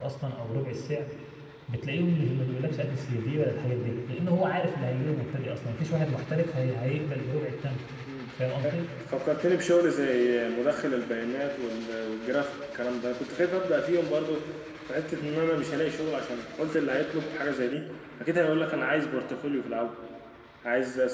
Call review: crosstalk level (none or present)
none